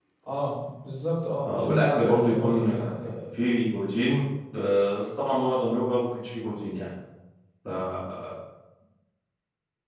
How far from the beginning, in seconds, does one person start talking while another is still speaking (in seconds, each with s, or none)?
1.4 s